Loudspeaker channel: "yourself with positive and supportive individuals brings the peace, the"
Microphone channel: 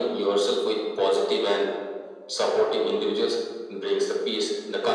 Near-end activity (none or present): none